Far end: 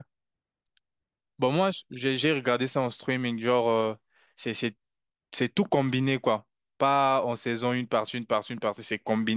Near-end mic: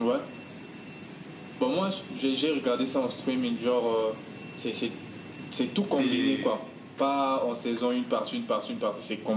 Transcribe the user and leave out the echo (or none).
C'est,